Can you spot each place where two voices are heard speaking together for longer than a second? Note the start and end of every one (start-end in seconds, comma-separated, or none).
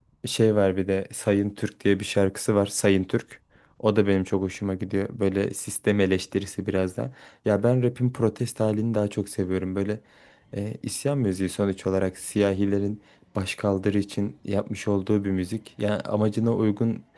none